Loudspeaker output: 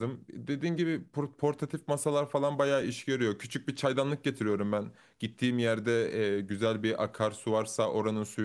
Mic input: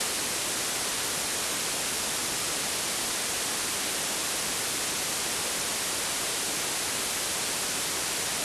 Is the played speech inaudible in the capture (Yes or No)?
Yes